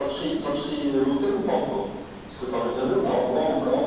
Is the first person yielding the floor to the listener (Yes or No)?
Yes